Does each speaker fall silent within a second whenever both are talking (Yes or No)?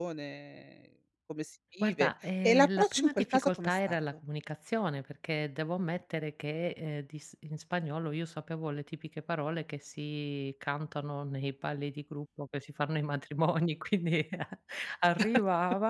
No